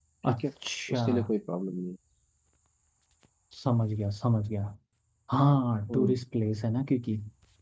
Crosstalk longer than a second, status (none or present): none